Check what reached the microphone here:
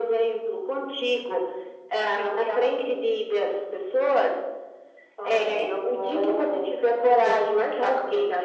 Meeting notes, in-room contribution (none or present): none